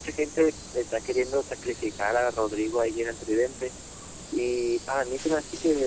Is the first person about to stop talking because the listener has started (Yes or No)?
No